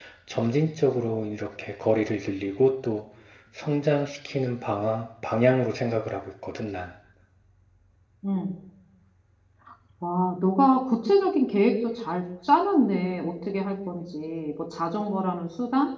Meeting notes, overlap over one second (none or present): none